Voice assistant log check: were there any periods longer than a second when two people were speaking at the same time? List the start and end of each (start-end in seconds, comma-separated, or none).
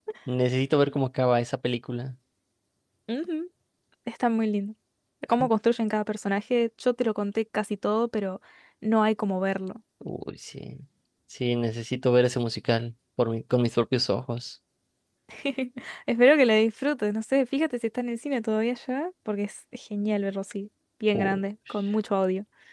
none